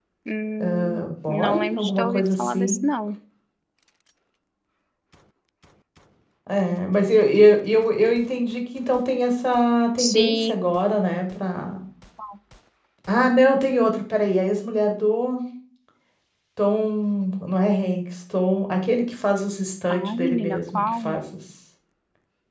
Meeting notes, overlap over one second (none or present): present